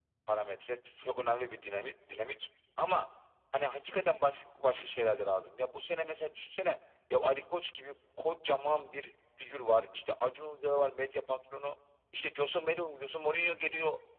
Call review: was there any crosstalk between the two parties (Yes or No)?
No